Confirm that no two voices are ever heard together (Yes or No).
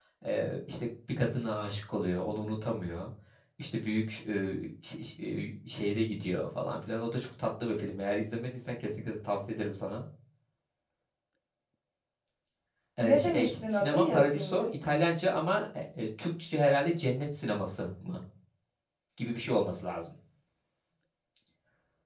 No